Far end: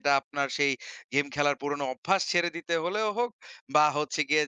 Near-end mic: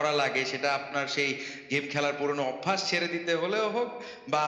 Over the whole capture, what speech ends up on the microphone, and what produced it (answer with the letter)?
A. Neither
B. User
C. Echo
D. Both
C